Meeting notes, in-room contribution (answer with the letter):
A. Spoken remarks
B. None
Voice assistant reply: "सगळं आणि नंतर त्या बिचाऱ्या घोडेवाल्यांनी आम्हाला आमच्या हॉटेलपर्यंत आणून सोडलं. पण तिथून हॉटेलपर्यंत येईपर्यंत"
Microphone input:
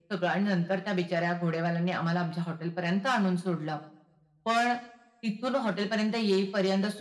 B